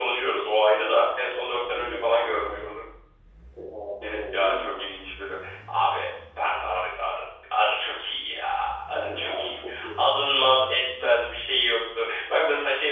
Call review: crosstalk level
present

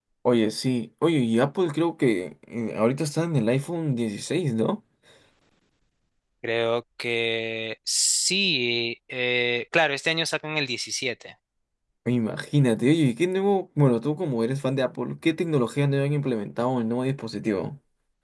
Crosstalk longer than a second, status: none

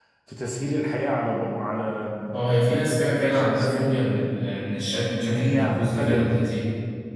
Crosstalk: present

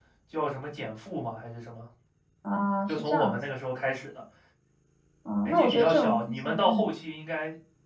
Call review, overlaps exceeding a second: present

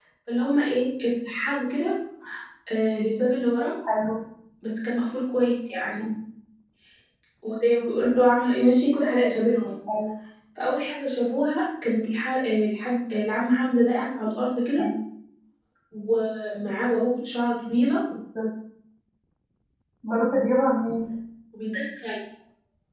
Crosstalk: none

